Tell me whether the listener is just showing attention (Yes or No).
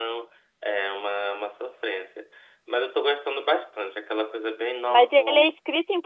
No